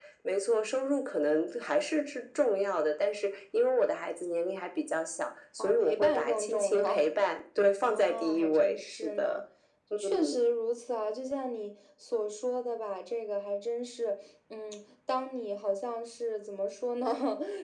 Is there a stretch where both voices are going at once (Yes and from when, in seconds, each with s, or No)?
Yes, from 5.6 s